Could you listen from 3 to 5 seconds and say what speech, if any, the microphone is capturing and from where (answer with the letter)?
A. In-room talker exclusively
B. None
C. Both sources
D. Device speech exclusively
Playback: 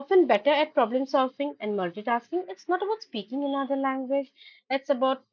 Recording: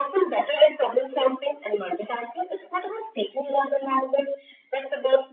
D